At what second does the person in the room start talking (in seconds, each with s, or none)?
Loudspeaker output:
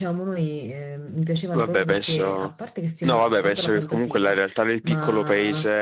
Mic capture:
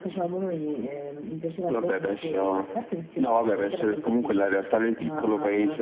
none